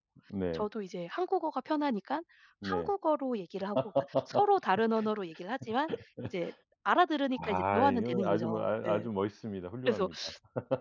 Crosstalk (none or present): present